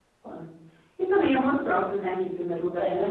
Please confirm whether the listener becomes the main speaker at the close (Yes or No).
No